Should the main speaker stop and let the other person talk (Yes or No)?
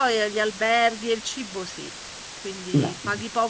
No